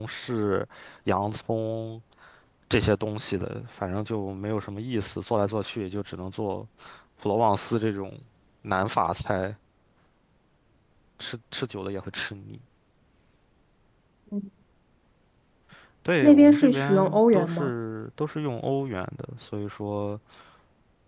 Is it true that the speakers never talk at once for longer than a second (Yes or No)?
No